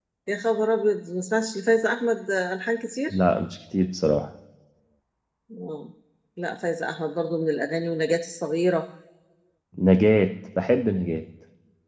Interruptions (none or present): none